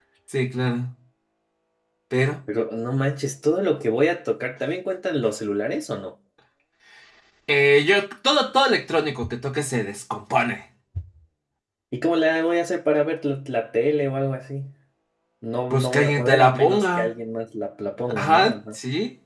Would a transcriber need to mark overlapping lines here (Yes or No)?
Yes